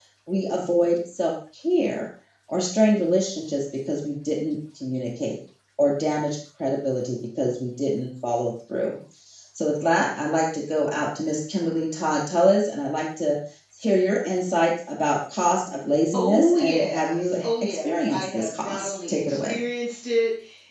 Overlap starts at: 16.1 s

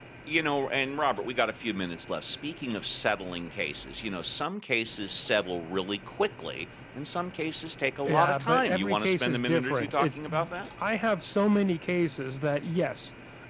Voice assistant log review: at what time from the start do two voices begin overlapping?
8.1 s

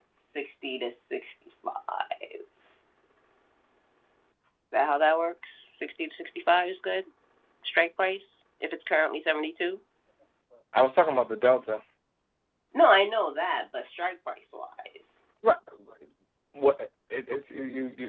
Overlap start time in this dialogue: none

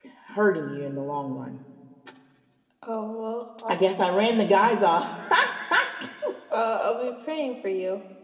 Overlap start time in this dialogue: none

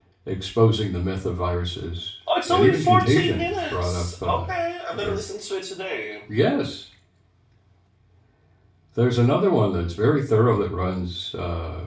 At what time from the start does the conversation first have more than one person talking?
2.3 s

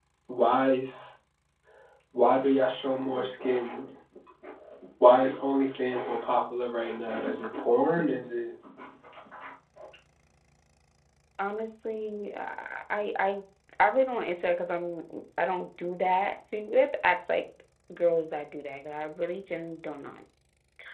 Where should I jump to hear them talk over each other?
none

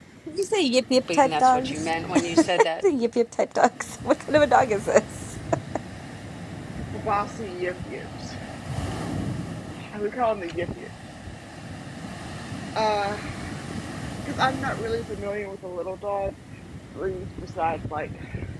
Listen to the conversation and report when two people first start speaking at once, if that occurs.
1.1 s

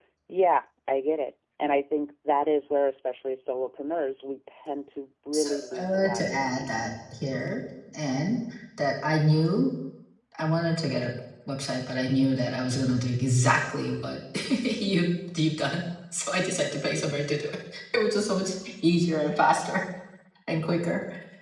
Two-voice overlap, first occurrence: 5.3 s

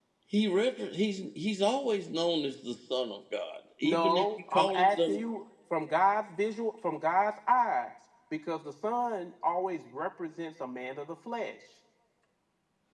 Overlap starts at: 3.8 s

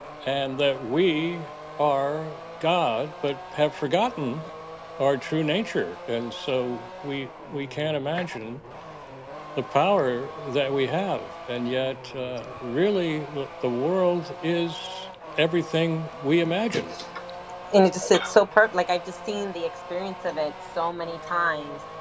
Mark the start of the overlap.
none

